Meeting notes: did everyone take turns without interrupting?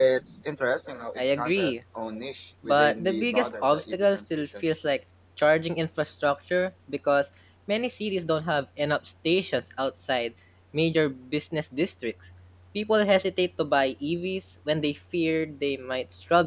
No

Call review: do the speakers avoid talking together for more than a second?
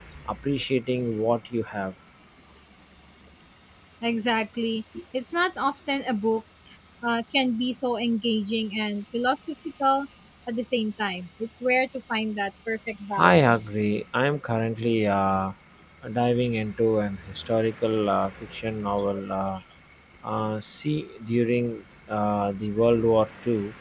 Yes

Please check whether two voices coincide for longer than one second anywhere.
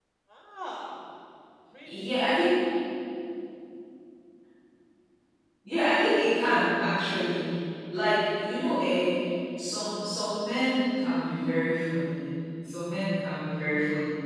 No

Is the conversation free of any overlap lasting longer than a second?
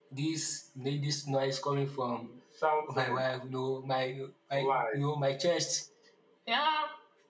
Yes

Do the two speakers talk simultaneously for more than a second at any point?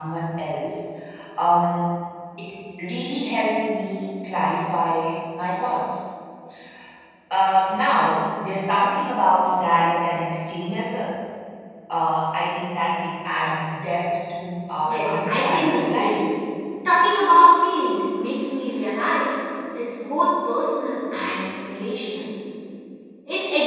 Yes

